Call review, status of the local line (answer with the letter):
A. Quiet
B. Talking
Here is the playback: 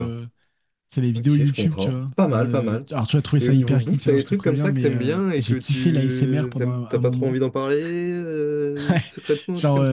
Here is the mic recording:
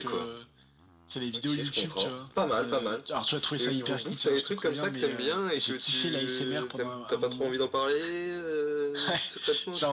A